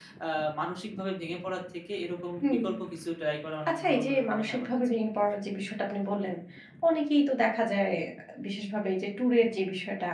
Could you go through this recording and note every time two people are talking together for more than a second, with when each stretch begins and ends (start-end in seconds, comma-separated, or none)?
3.7-4.9